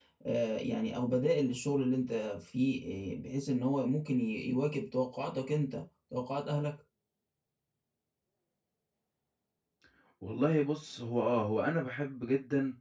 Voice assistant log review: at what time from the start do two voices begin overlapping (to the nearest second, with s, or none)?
none